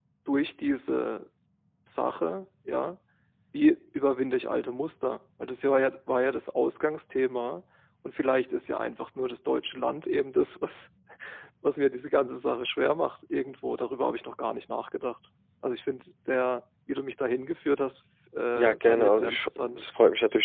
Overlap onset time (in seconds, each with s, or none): 18.6 s